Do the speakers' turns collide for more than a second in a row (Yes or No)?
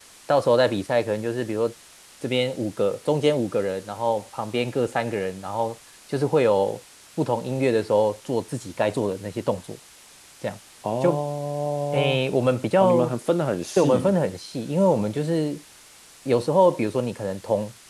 No